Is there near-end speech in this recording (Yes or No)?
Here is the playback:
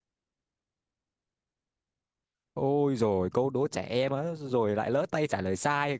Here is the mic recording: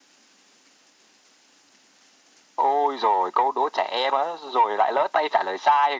No